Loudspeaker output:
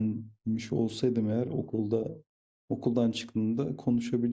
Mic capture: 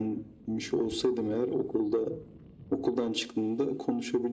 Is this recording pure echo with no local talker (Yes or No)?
Yes